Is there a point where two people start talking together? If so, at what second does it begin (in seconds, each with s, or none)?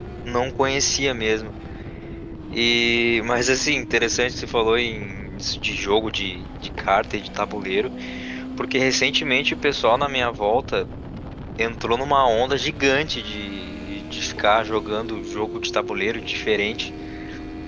none